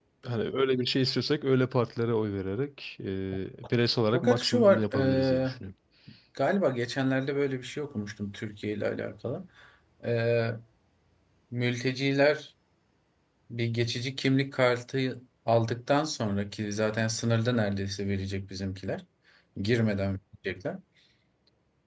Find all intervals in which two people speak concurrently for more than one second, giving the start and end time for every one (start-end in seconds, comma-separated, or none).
4.1-5.5